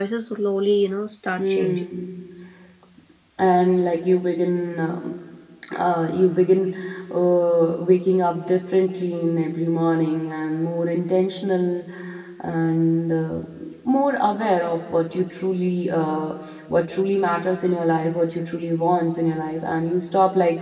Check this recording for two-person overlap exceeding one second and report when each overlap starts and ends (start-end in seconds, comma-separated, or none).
none